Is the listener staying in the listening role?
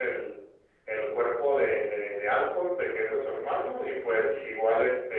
Yes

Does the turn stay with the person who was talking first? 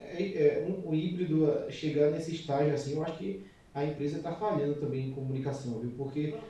Yes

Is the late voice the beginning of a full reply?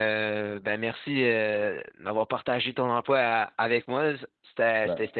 No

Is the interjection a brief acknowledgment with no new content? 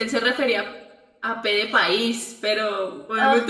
Yes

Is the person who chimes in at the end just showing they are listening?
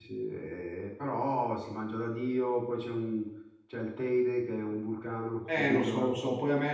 No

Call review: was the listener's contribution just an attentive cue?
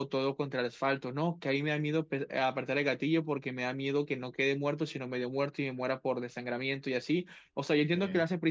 Yes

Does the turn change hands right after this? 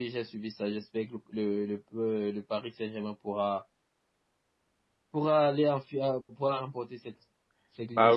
Yes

